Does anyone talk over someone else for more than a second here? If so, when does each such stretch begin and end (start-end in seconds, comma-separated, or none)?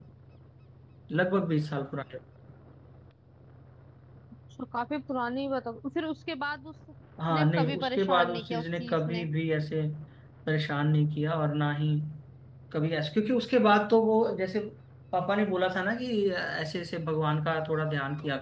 7.3-9.3